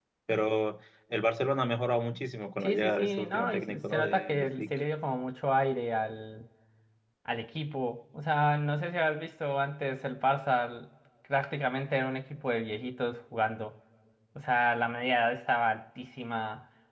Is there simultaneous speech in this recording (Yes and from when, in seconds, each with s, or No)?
Yes, from 2.6 s